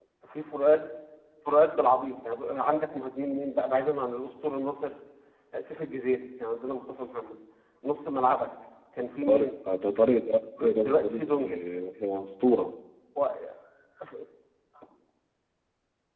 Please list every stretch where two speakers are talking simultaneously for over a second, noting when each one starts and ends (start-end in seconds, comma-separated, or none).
10.2-11.5